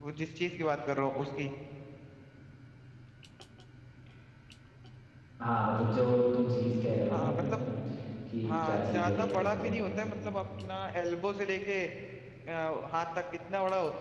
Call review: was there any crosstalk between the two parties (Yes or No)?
Yes